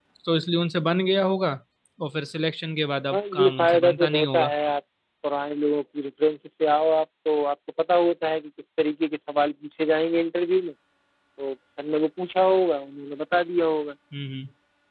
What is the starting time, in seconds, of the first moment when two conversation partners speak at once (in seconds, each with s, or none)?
3.1 s